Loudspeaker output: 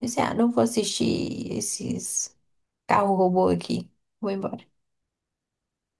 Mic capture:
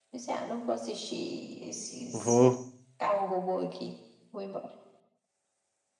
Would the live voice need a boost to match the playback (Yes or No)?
No